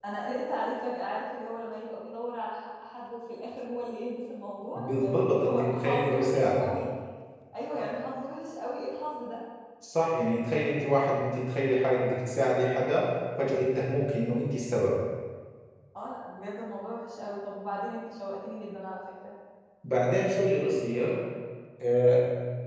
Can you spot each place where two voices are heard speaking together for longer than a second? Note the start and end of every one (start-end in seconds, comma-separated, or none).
4.8-6.7